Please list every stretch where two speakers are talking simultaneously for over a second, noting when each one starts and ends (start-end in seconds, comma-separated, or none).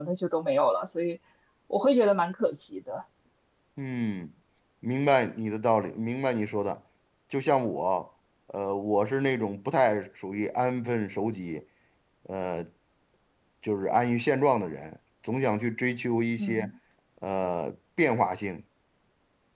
none